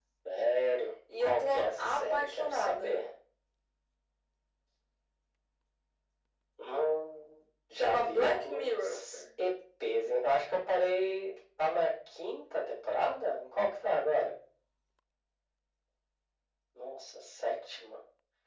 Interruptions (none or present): present